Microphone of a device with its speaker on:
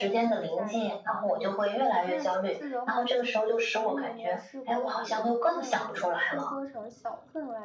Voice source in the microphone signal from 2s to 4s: both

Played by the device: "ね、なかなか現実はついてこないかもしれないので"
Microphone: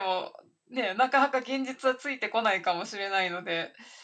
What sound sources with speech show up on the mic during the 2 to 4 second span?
echo only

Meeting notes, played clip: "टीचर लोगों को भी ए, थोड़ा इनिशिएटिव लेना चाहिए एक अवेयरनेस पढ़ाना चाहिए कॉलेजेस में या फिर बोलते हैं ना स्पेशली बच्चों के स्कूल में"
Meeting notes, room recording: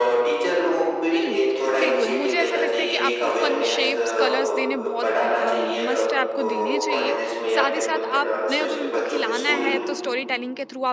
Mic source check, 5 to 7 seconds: both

